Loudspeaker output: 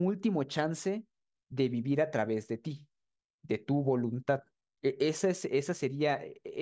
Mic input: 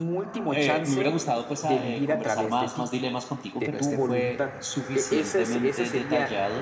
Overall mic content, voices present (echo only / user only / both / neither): both